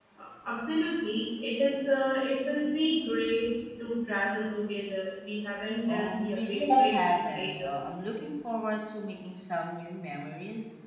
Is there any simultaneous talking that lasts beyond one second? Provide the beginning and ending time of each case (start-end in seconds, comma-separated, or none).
5.9-7.8